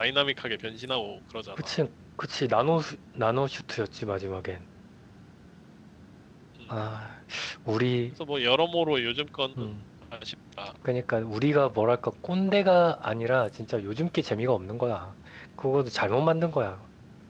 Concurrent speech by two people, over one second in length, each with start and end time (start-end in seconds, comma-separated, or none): none